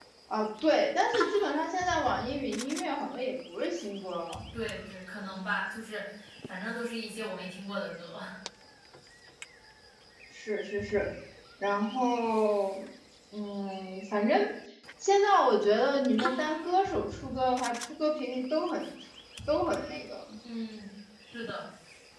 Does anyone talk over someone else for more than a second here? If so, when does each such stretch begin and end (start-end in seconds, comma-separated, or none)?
none